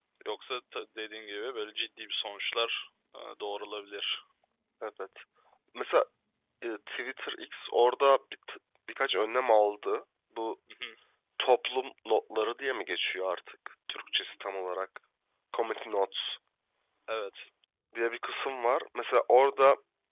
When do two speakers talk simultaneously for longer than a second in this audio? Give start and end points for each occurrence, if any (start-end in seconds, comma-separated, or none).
none